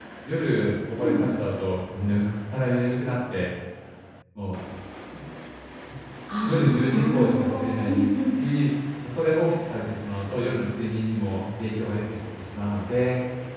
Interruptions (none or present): present